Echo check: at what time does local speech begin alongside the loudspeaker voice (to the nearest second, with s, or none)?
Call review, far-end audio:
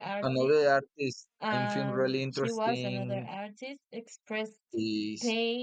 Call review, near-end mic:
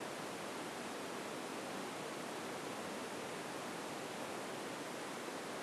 none